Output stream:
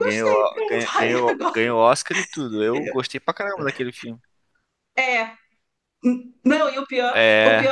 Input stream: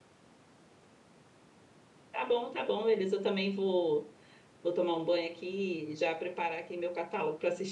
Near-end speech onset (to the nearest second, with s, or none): 2 s